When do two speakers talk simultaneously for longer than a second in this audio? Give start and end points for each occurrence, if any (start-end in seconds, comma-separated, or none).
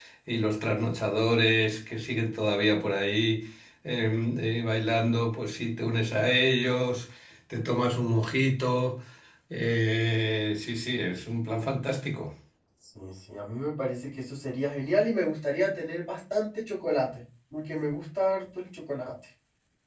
none